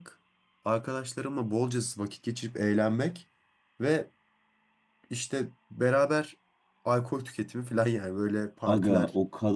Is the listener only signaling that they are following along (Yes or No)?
No